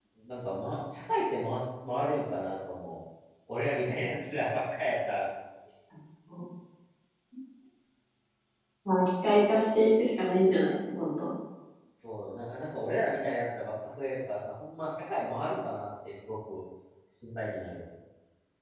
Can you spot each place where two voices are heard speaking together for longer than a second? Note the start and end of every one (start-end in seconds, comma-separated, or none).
none